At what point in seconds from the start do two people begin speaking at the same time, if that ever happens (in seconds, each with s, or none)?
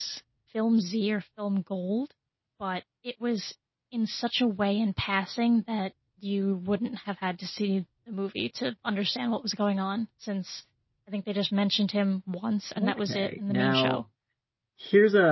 12.8 s